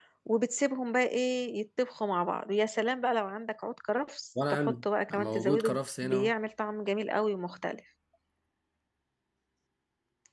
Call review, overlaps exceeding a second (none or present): present